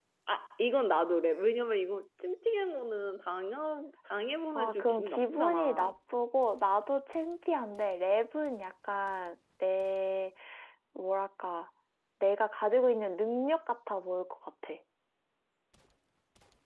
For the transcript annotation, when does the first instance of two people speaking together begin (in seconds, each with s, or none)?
4.6 s